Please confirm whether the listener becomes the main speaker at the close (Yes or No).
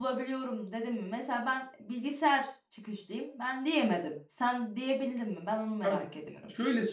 Yes